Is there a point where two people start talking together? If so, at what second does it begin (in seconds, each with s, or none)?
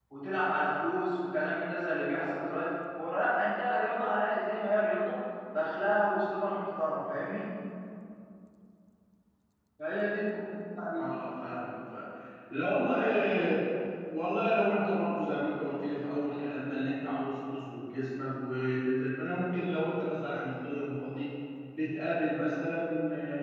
none